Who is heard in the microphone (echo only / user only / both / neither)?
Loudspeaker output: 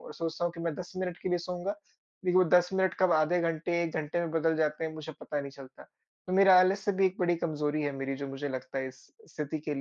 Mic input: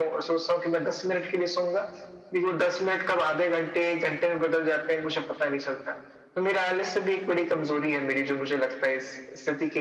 echo only